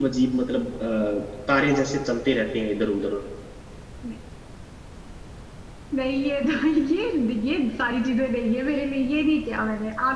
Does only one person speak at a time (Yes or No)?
Yes